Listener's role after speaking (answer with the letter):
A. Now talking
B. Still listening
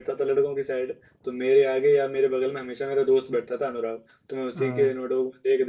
B